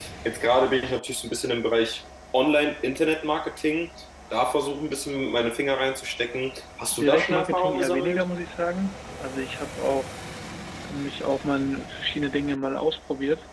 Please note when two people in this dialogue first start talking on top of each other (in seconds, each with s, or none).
6.9 s